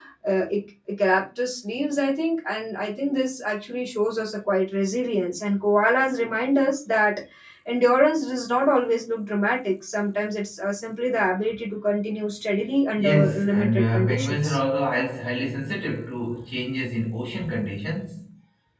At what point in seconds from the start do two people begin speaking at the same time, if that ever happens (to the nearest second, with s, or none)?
13 s